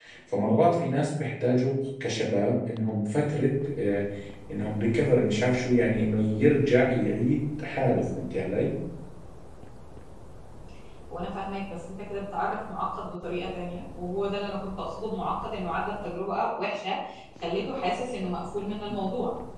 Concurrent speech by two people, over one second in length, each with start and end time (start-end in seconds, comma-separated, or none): none